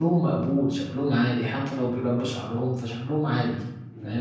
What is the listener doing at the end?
taking over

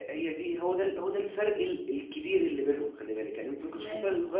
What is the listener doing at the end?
listening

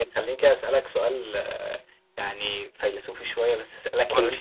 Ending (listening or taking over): listening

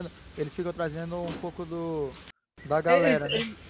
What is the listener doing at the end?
taking over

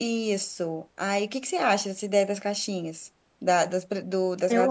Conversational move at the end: listening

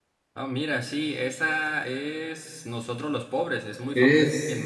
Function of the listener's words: taking over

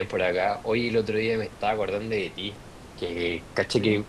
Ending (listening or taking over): listening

